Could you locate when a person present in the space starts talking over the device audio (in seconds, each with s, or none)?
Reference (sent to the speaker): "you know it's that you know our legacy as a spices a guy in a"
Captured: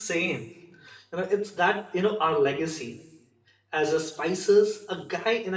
none